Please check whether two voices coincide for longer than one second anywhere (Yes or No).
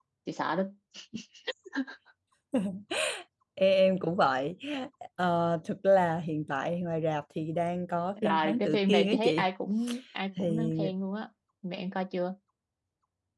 Yes